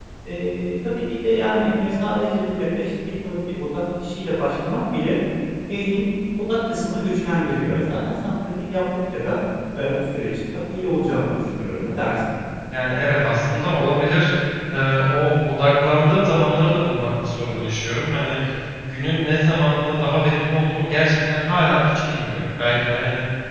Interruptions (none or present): none